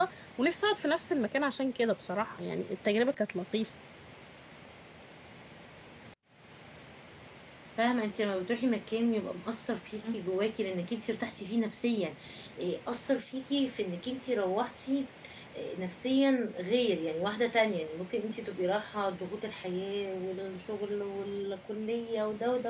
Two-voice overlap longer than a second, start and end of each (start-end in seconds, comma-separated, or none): none